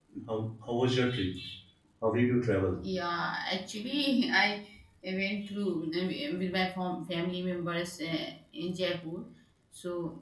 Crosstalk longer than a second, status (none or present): none